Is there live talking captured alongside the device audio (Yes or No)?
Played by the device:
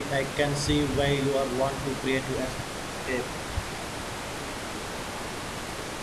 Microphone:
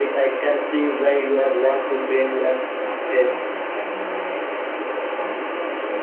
Yes